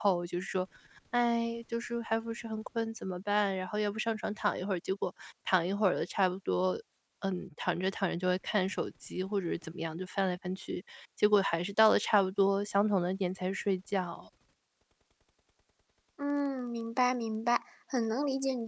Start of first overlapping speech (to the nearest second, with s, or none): none